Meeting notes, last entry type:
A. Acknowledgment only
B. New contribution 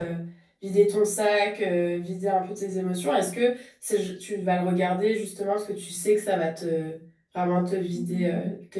B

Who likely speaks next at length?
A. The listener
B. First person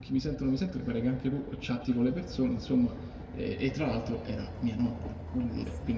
A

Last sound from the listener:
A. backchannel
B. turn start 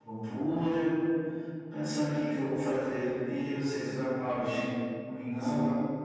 B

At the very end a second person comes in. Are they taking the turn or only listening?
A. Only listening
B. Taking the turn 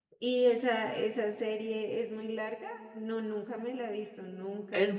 B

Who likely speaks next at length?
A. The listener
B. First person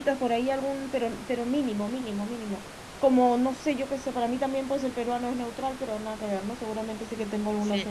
A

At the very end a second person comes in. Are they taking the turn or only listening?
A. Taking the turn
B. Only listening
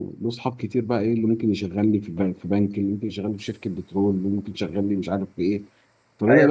A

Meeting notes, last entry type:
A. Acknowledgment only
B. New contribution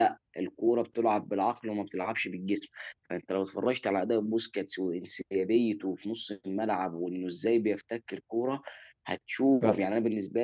A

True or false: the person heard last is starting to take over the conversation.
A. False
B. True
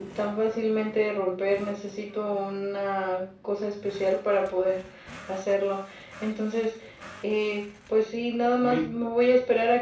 A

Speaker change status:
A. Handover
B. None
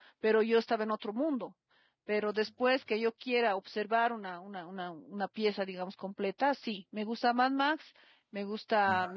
B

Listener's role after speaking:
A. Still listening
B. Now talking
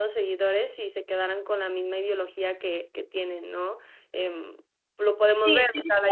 B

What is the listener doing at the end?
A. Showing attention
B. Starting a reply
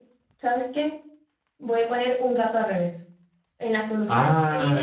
B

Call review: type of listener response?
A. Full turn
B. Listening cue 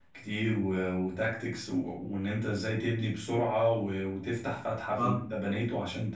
B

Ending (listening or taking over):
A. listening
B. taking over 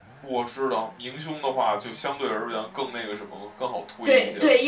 B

